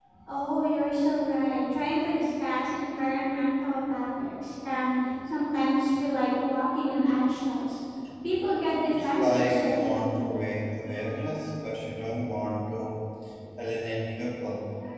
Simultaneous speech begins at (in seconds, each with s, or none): 9.0 s